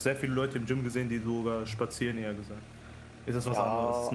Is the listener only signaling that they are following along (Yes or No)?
No